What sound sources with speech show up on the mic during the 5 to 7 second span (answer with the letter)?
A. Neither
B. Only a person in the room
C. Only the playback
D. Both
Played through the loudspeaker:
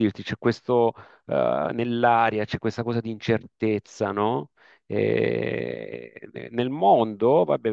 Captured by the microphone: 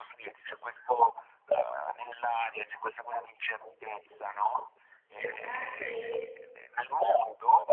D